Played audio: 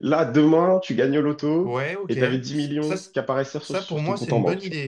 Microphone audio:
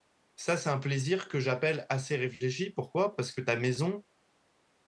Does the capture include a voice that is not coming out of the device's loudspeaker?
Yes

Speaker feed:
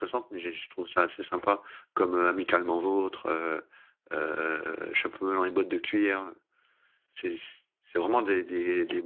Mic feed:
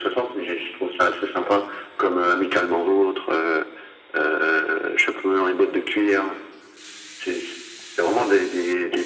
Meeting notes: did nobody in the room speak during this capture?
Yes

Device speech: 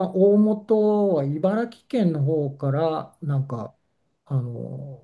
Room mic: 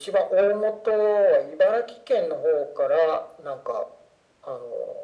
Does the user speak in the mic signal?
No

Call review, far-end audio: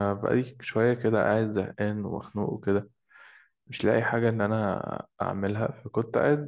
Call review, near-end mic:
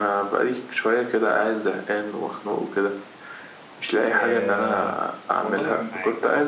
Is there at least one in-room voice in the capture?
Yes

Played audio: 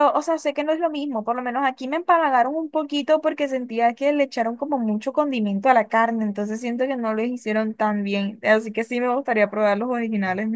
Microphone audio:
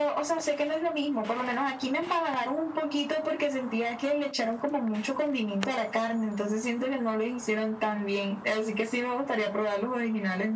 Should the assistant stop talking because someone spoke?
No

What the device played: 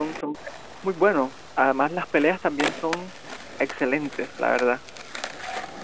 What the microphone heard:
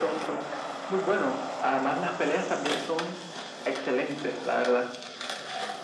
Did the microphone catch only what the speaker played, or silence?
Yes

